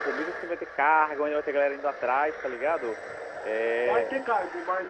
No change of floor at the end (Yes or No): No